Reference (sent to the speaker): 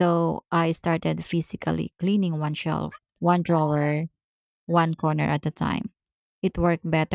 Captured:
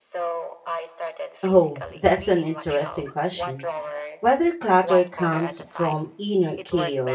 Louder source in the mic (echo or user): user